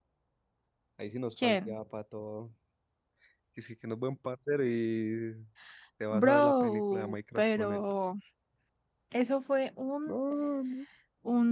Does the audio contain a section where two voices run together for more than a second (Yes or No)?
Yes